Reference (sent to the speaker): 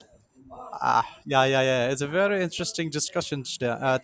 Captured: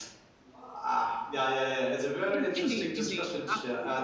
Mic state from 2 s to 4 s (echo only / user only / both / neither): both